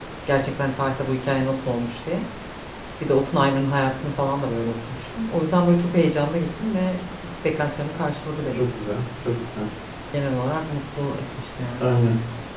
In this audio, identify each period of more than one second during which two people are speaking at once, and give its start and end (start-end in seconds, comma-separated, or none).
none